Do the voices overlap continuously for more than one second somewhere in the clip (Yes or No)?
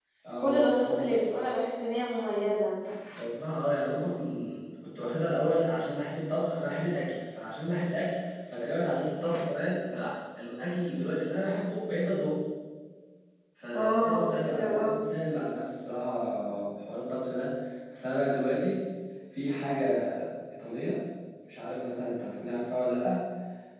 Yes